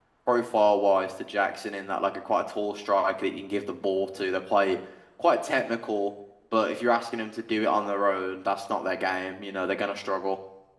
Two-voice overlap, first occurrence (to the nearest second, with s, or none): none